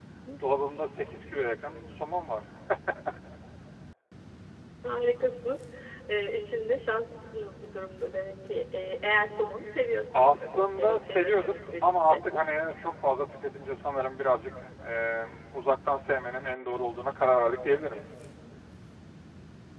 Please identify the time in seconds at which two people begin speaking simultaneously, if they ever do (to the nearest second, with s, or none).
10 s